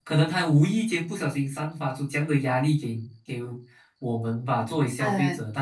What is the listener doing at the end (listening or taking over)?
listening